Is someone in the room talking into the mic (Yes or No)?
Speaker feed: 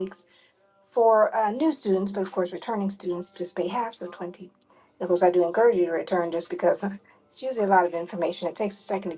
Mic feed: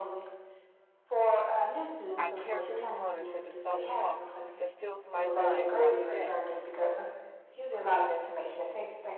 Yes